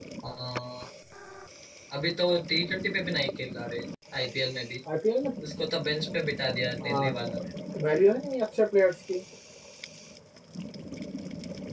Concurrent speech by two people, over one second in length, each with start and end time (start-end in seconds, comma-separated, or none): none